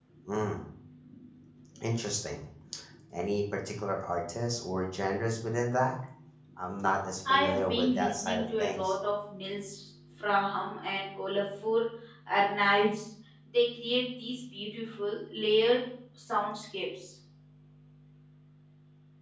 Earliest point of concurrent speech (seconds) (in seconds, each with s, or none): 7.3 s